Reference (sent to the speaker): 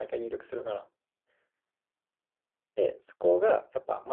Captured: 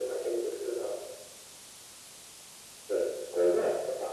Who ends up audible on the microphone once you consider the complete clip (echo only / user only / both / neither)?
echo only